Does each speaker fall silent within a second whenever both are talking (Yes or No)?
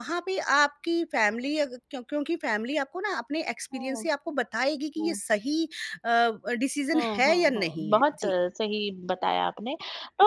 No